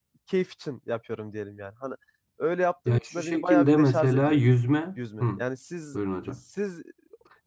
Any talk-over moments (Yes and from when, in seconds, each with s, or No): Yes, from 2.9 s